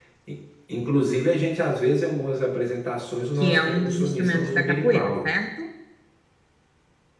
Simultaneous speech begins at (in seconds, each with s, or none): 3.4 s